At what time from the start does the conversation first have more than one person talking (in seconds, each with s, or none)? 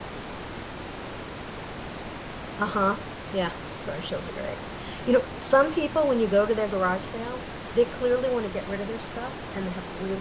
none